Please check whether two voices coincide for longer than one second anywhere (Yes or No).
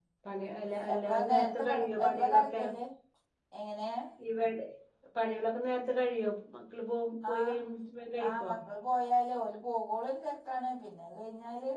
Yes